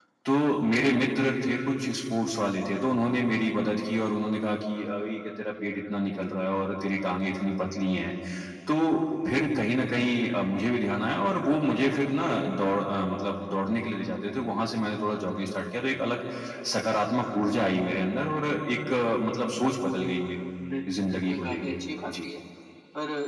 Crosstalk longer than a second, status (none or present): present